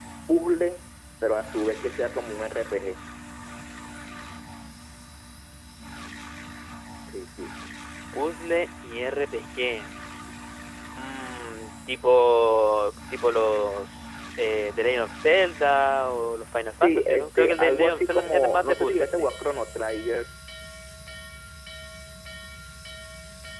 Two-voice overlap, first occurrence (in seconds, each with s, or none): 16.8 s